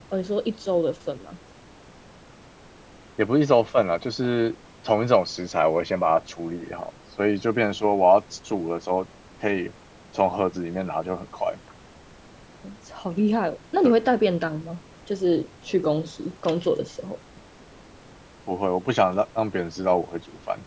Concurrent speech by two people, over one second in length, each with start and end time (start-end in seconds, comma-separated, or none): none